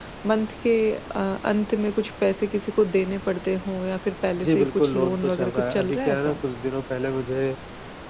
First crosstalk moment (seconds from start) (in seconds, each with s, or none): 4.4 s